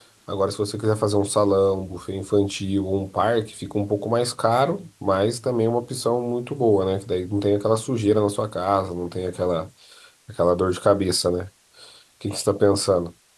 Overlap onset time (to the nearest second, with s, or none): none